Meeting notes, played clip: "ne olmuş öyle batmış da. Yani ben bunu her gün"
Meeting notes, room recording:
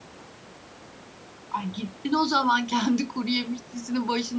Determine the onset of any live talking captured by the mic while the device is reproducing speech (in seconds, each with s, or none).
1.5 s